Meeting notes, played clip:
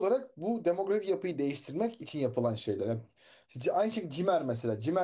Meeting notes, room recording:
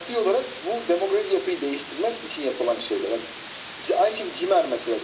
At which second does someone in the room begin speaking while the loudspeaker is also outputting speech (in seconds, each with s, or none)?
none